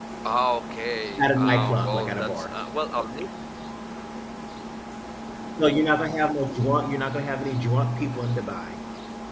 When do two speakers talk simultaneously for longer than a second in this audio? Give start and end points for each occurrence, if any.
1.2-2.6

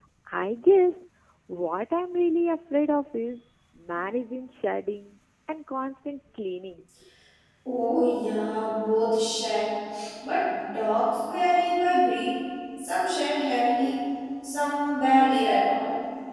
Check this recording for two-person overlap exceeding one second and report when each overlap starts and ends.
none

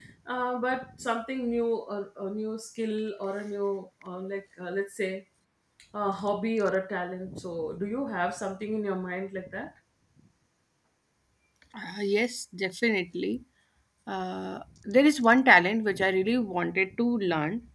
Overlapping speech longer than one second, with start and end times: none

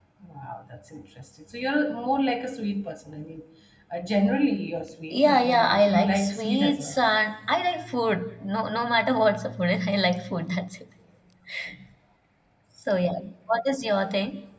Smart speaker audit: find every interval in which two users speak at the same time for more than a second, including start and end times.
5.1-7.0

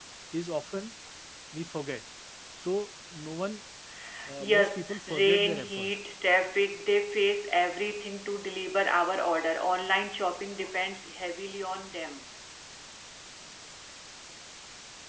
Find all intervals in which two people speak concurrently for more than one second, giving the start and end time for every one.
4.4-6.0

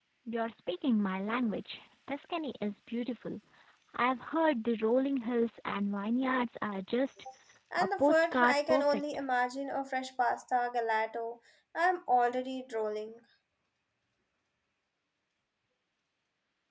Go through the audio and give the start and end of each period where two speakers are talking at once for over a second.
7.8-9.0

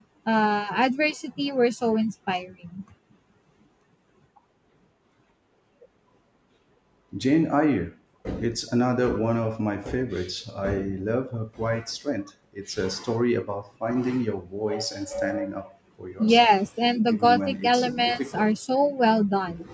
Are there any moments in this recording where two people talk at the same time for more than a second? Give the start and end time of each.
17.1-18.5

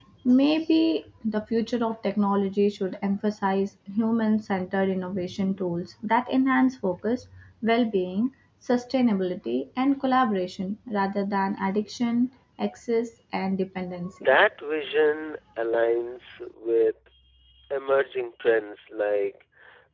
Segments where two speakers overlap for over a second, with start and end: none

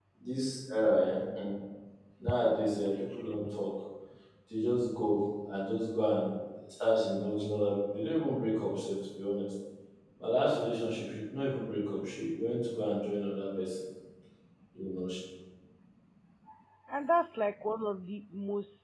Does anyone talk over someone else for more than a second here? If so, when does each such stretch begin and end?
none

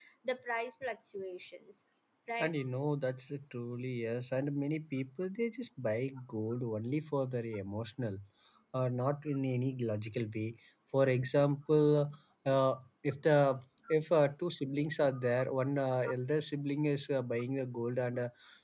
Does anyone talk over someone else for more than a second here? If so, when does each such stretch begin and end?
none

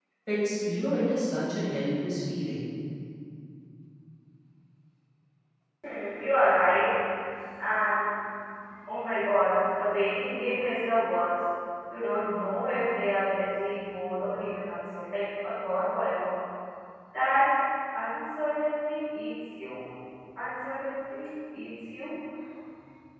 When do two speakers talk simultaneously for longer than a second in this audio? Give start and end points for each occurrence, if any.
none

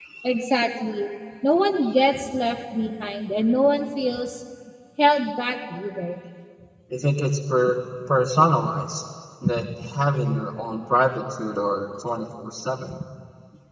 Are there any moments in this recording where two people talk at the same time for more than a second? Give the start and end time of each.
none

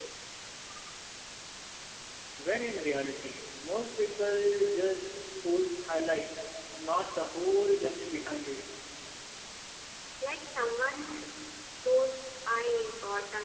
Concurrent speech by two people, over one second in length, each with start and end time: none

